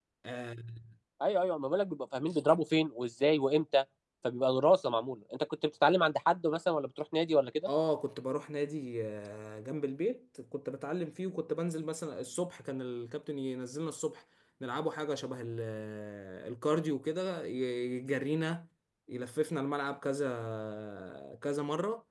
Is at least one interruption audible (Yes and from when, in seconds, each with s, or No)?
No